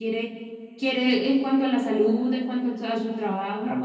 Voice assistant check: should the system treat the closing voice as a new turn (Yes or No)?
Yes